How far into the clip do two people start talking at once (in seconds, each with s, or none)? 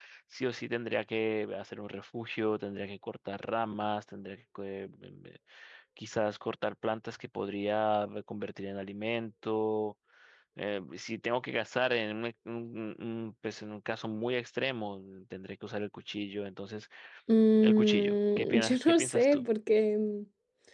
17.6 s